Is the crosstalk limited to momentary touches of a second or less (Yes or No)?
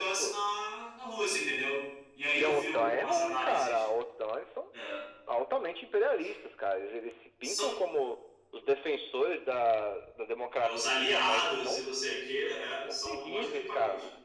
No